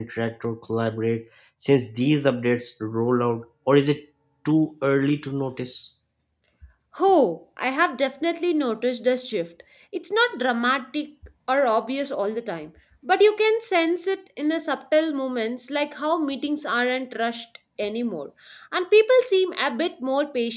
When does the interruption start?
none

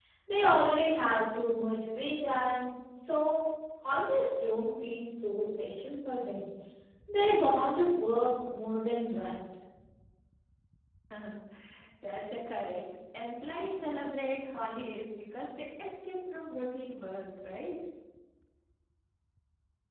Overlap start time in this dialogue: none

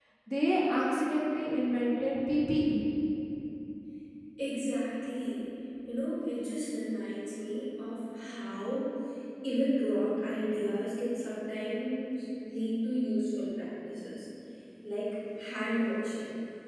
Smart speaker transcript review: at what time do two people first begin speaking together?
none

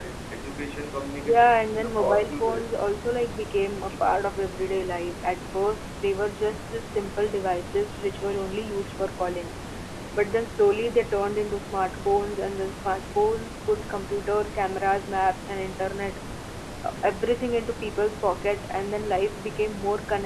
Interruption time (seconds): 1 s

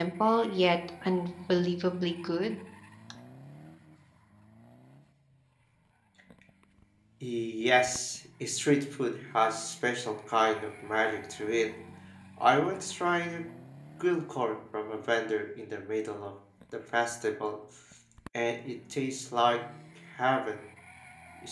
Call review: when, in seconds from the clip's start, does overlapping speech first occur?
none

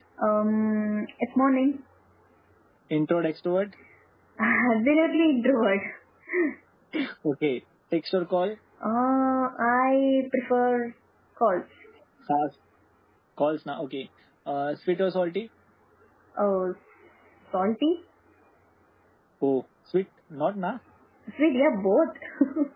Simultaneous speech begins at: none

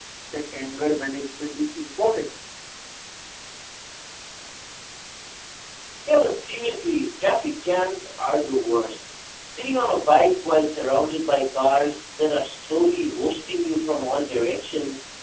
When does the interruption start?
none

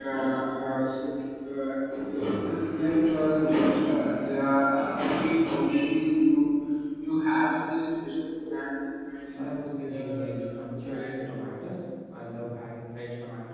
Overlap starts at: 9 s

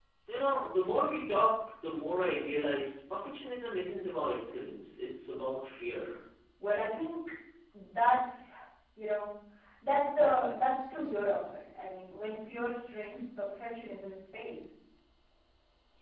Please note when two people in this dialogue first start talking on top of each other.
none

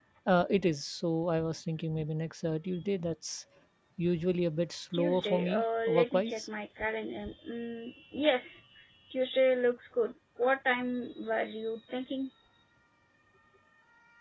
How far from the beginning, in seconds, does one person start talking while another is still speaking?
5 s

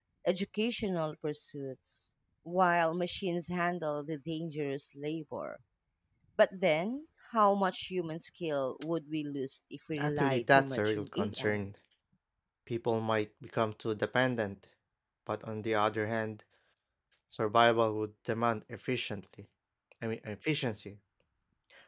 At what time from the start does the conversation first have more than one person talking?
10 s

